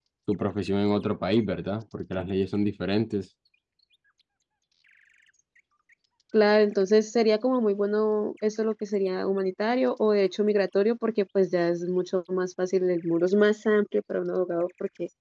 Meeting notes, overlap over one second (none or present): none